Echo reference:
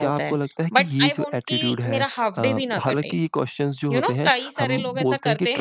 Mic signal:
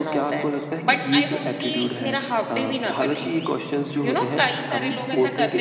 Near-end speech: none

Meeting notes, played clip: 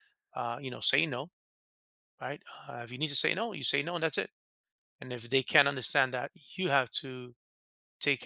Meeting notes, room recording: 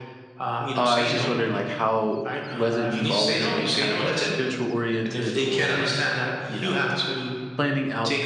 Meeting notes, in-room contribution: present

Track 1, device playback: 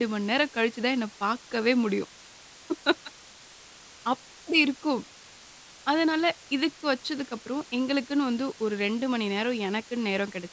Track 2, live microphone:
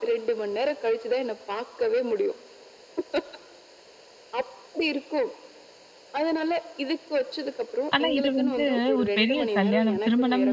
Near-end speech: present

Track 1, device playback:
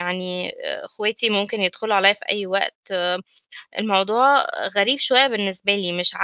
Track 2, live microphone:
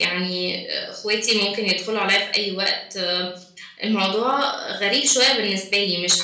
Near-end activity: none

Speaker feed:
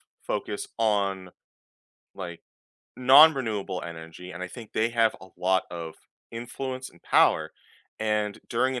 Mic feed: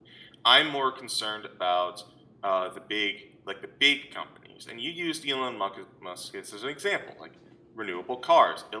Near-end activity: present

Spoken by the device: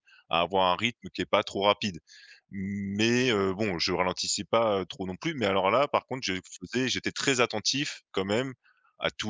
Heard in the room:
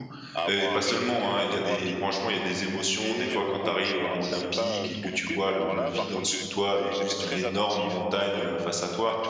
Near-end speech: present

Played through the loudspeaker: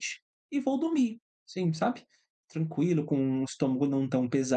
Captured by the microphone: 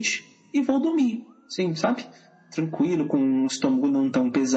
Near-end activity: none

